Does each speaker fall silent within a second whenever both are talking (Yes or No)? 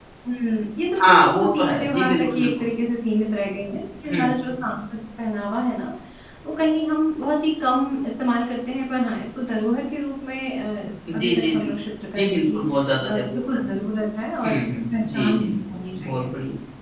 No